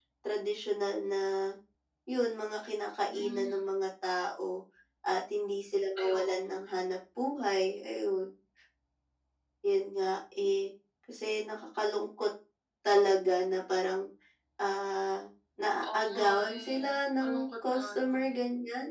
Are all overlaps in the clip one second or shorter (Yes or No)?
No